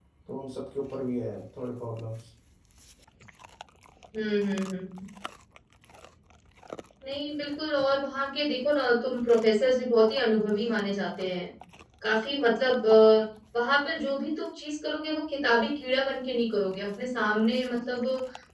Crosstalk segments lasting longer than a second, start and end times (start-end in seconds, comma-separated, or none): none